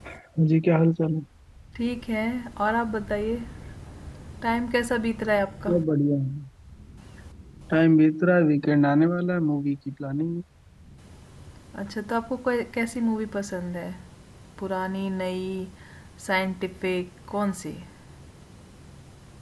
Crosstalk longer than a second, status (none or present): none